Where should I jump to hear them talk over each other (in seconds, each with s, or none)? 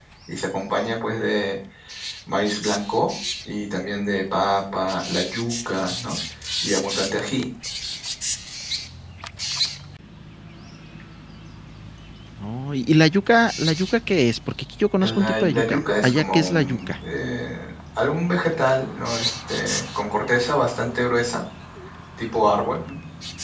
15.0 s